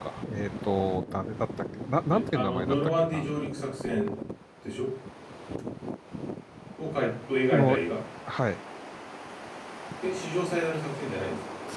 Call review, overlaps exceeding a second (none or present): present